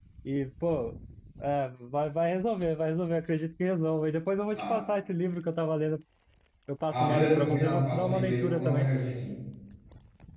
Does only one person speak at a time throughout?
No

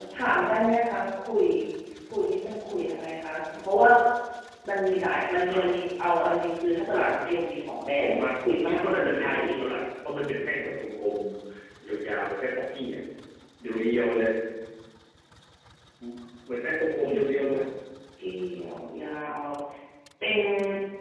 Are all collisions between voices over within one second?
No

